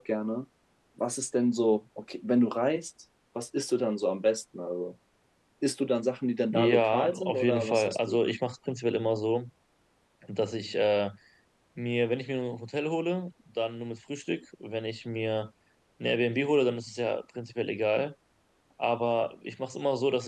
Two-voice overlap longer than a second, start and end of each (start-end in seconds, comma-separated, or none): 6.5-8.2